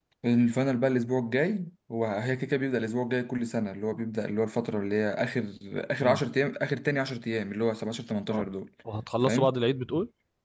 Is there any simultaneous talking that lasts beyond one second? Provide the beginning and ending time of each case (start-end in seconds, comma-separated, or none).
none